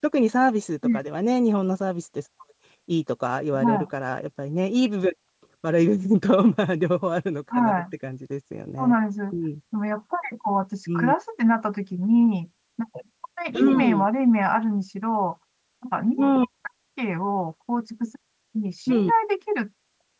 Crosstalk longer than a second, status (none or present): none